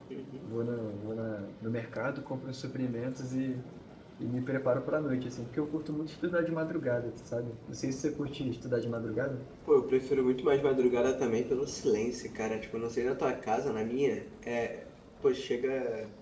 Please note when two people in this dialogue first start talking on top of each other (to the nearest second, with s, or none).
none